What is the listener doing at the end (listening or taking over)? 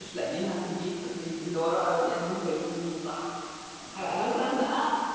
listening